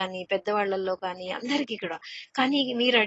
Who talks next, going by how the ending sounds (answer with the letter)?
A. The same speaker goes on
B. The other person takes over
A